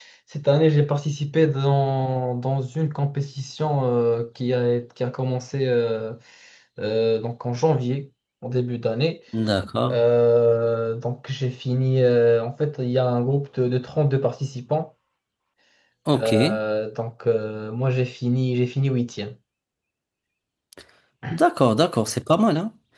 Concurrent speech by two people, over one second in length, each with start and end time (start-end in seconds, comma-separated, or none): none